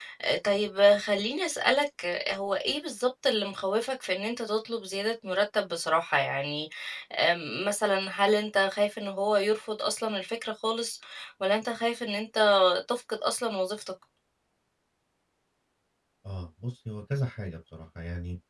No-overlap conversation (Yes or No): Yes